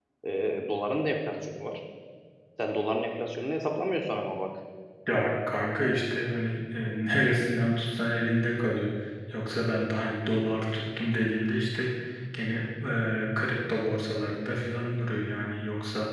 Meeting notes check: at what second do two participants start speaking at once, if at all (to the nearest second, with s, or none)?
none